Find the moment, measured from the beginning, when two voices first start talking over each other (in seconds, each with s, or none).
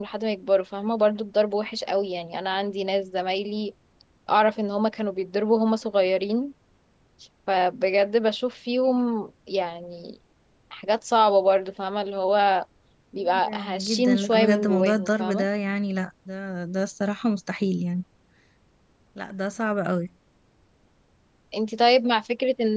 13.2 s